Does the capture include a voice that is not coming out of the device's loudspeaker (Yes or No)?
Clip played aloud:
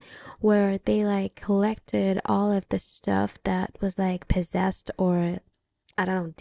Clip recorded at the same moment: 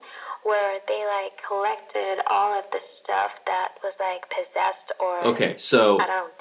Yes